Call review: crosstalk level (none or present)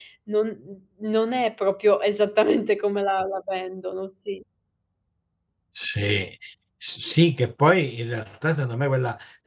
none